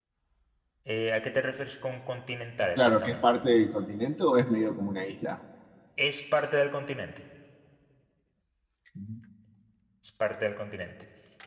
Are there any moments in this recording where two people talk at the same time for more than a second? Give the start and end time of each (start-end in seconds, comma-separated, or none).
none